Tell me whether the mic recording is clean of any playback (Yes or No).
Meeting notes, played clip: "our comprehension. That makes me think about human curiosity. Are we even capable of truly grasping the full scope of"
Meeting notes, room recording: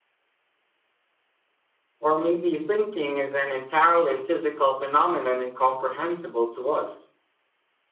Yes